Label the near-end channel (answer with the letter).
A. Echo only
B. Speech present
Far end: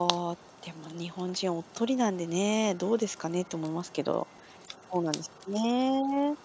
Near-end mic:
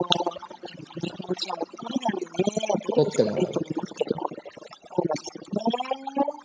B